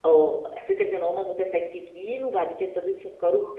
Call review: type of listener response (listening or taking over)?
listening